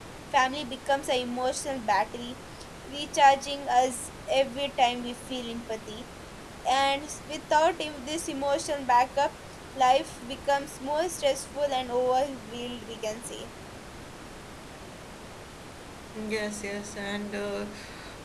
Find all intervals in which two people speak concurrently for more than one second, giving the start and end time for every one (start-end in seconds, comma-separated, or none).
none